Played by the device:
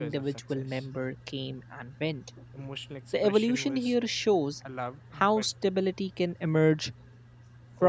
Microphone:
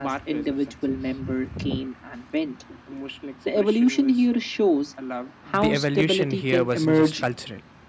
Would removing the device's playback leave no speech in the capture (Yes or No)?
No